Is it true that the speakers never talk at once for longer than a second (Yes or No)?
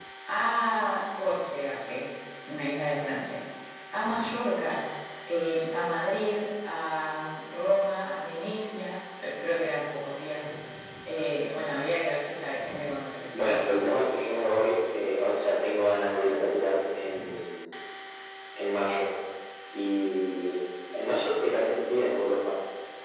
Yes